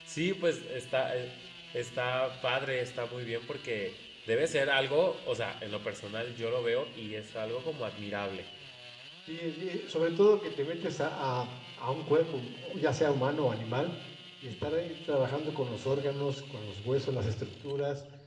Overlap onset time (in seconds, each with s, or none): none